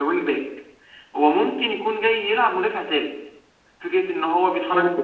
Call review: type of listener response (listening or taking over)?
listening